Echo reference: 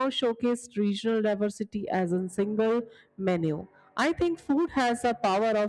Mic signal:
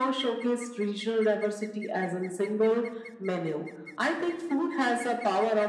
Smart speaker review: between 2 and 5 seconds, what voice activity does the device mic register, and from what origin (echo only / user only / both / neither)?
echo only